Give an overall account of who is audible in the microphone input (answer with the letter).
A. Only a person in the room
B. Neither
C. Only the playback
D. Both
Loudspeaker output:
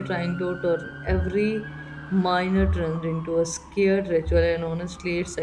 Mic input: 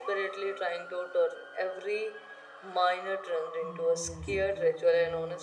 D